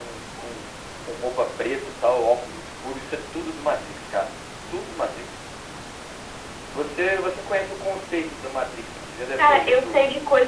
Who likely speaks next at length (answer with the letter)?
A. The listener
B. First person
A